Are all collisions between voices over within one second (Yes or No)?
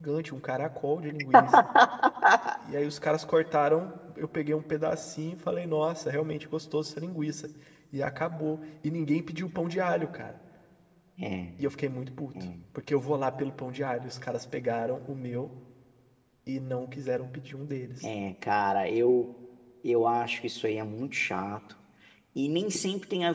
Yes